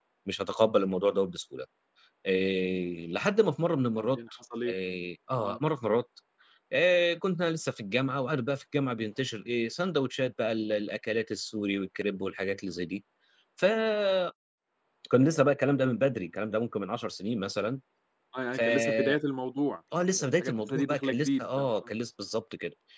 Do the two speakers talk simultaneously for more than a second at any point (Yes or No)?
Yes